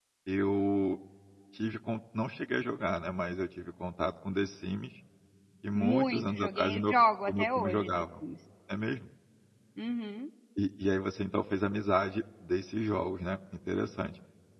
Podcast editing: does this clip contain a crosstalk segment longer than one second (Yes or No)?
Yes